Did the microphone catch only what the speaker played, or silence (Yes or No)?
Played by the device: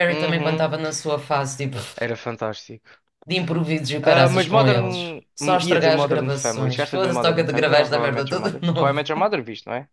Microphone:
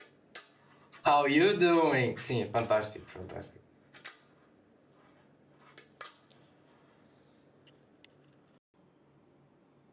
No